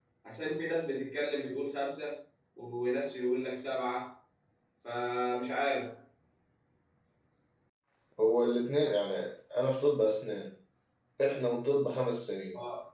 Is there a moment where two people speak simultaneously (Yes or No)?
No